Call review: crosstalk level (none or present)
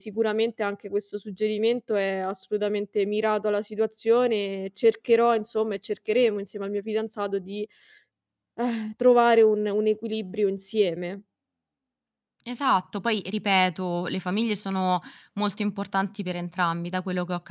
none